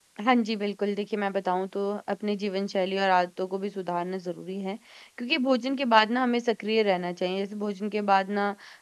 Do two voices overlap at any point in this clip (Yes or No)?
No